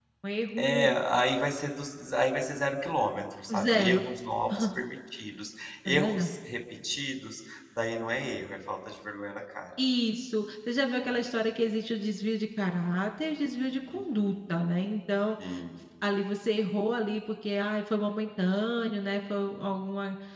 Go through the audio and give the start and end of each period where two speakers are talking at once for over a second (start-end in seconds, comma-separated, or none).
none